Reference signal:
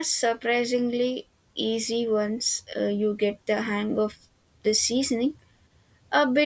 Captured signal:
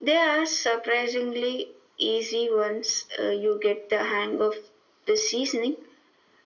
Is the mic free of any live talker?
Yes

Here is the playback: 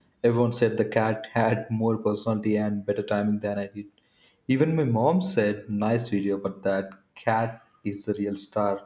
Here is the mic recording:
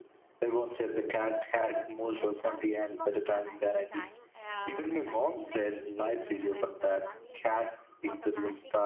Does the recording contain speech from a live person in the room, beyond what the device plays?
Yes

